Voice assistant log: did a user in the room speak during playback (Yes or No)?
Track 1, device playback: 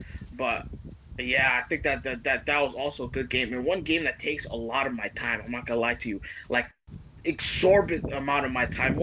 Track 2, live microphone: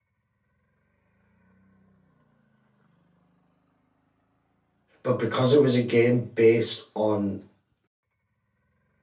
Yes